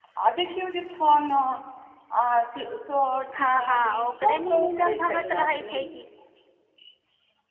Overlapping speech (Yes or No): Yes